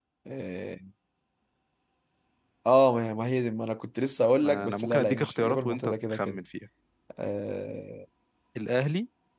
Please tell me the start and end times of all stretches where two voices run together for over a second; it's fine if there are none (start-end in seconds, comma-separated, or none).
4.4-6.4